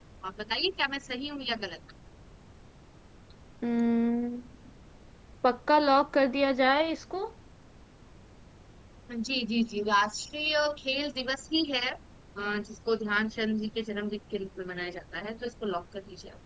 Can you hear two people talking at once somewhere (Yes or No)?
No